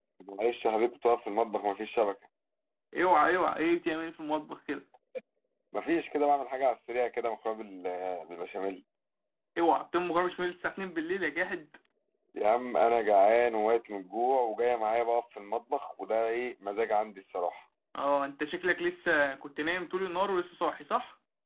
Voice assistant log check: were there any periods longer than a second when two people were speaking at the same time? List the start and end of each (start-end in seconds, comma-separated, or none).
none